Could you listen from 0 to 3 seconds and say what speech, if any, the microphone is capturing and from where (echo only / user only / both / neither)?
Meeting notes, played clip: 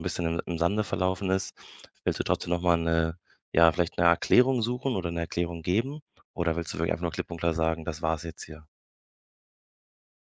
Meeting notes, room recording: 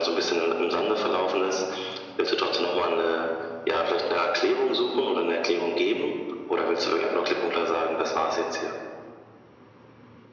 echo only